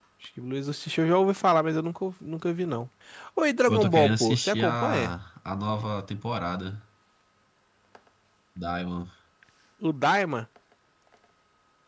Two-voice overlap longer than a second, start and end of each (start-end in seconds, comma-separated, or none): 3.7-5.1